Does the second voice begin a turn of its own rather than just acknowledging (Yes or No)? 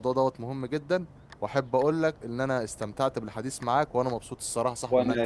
Yes